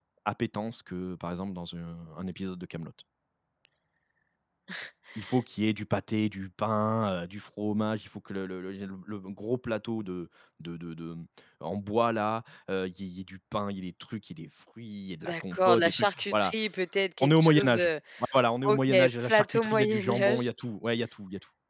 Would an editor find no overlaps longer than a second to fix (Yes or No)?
No